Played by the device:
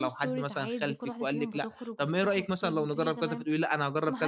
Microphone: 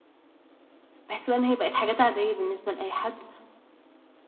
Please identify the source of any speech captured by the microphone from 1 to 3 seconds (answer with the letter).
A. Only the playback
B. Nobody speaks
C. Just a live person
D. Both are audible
C